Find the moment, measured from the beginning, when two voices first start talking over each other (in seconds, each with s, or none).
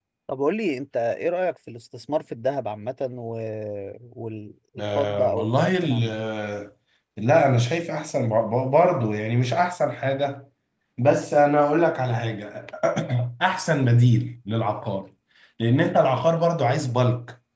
4.8 s